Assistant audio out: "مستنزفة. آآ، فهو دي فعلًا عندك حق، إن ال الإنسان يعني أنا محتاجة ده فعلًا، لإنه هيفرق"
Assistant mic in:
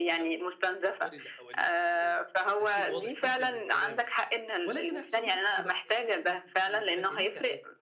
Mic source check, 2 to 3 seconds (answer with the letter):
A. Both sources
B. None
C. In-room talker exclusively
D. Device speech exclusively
A